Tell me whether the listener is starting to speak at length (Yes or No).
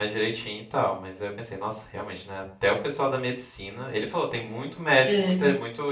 No